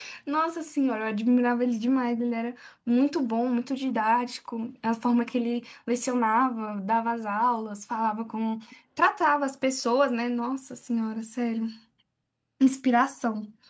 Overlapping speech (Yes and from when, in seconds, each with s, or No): No